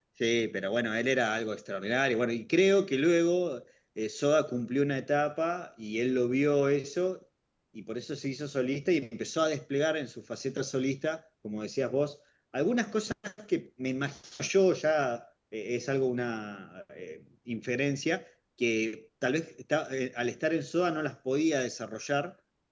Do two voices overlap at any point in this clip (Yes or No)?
No